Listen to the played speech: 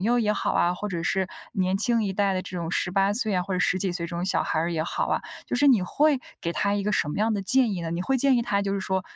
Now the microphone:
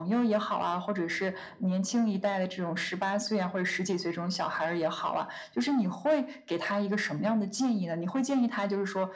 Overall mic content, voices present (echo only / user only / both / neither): echo only